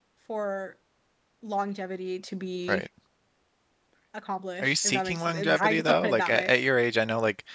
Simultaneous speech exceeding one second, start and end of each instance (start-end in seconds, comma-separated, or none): 4.6-6.5